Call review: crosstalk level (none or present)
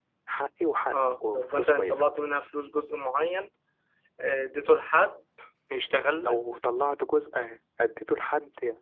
present